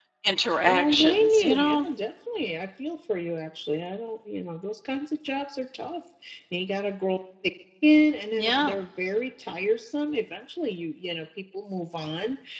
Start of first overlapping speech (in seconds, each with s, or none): 0.7 s